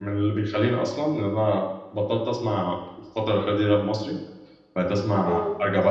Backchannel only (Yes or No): Yes